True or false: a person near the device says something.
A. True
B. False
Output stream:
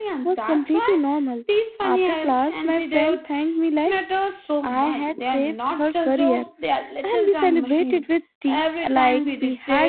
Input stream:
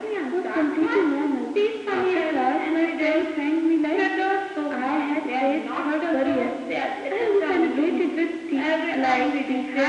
B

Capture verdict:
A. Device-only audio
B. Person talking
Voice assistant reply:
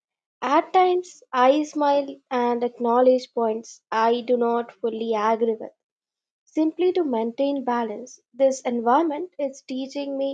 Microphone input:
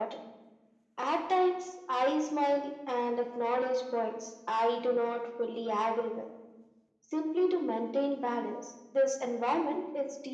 A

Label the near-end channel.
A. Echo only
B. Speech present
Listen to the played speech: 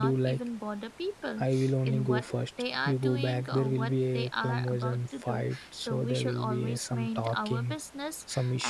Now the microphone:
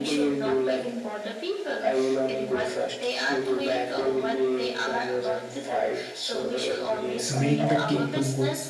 B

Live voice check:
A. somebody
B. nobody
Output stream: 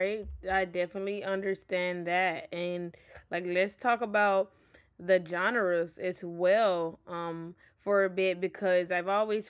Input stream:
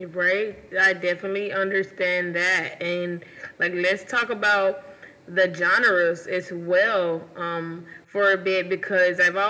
B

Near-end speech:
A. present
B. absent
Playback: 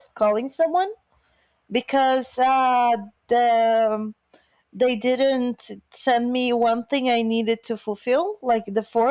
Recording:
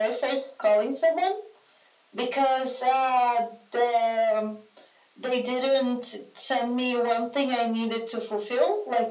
B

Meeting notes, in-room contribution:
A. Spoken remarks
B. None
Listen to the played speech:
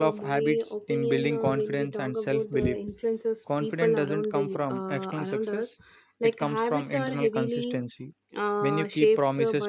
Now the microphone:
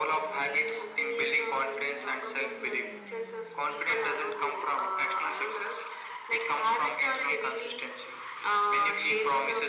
B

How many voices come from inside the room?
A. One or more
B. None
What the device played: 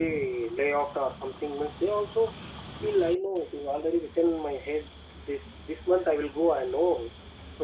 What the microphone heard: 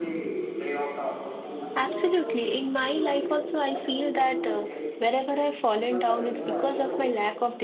A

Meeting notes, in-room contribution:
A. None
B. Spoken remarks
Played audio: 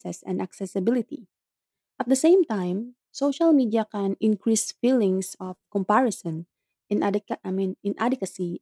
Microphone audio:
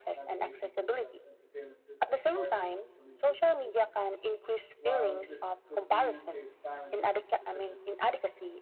B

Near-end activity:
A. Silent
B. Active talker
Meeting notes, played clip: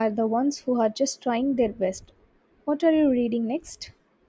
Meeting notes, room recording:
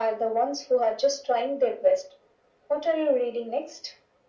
A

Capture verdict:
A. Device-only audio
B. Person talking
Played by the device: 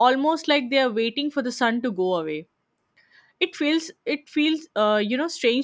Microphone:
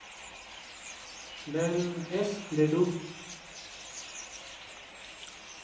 B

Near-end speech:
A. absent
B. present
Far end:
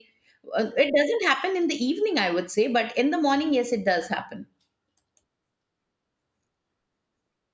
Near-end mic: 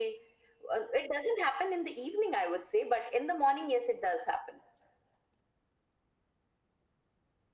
A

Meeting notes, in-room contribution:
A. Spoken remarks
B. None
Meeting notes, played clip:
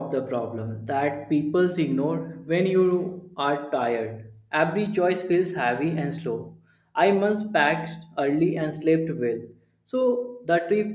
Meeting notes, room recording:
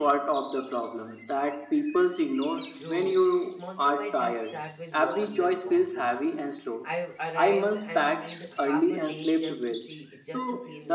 A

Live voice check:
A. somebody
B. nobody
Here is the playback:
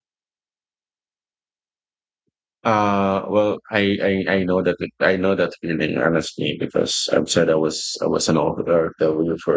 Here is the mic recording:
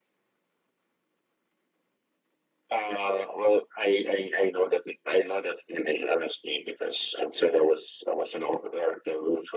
B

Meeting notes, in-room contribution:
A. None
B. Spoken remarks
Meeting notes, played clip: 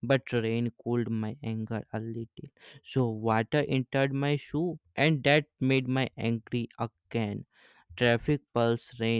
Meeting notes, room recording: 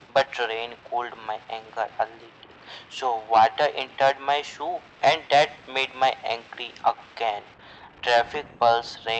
A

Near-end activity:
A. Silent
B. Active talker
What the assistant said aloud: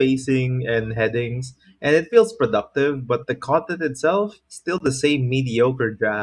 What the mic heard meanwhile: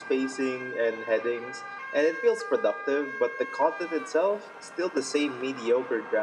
A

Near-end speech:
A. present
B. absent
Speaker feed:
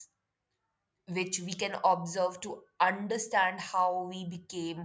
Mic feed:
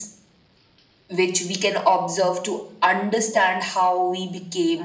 B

